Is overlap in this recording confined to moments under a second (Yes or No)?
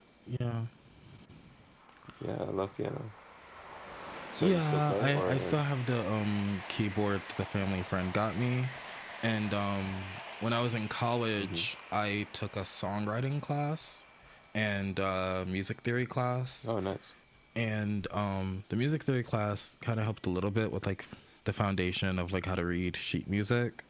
No